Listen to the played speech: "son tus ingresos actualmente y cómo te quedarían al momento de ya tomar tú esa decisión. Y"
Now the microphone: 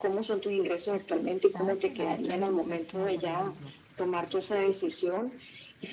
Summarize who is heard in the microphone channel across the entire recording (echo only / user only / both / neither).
both